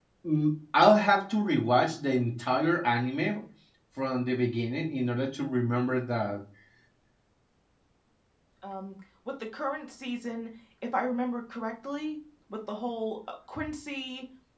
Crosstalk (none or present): none